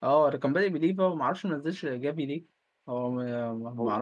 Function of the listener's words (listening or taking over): taking over